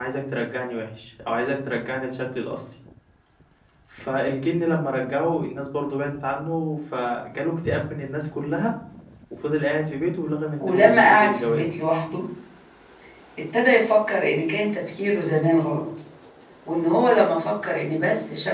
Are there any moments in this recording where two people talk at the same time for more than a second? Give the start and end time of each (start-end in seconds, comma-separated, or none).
10.6-11.8